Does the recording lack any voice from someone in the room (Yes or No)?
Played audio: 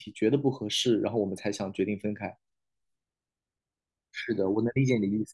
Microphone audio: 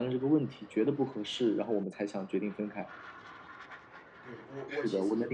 No